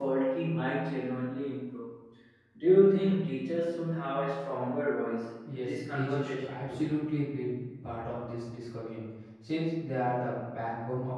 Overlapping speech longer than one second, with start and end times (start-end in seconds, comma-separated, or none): 5.5-6.8